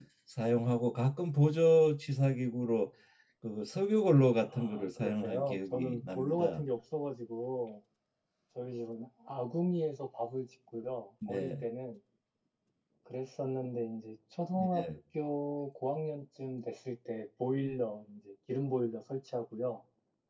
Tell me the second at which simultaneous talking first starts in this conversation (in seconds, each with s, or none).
4.5 s